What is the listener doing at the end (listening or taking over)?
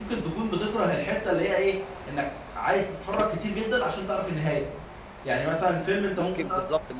taking over